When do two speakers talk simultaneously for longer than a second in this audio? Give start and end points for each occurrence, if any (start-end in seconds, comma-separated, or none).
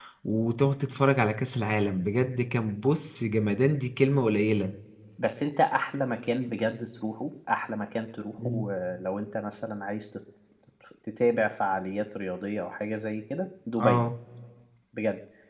none